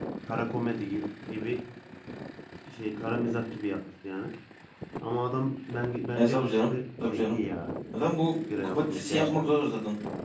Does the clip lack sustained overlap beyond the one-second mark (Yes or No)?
No